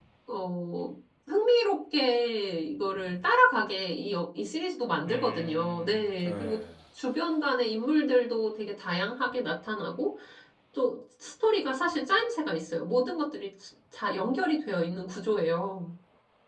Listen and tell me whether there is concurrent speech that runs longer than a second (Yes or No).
Yes